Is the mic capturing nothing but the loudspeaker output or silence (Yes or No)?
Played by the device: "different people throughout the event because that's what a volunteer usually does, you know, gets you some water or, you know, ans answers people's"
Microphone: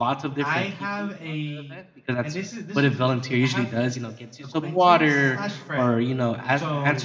No